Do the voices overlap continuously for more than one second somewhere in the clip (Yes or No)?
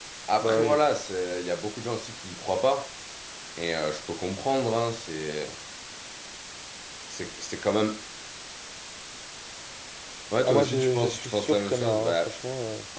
Yes